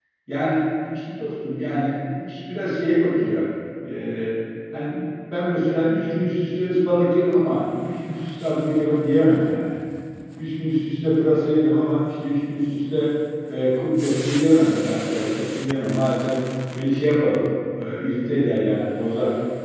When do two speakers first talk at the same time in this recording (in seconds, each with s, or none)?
none